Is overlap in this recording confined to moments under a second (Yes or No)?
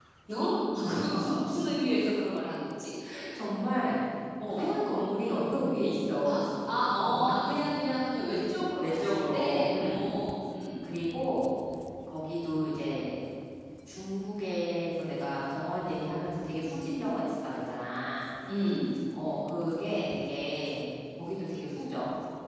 No